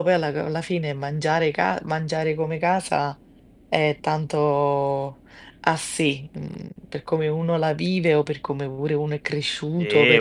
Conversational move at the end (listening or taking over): taking over